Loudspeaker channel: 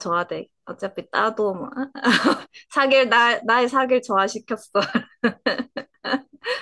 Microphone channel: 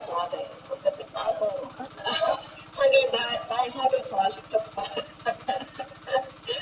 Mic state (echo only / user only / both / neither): echo only